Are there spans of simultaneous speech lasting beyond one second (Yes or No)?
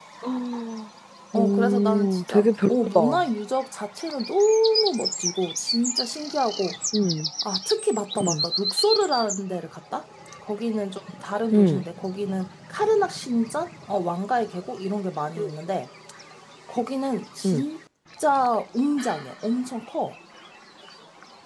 Yes